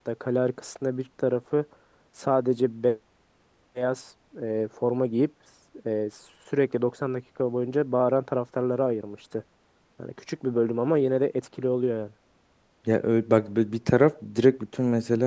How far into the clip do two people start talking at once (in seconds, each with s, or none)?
none